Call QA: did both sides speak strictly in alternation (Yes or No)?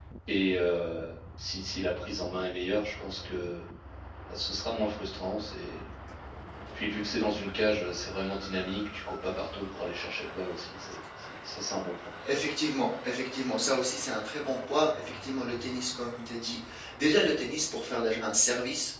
Yes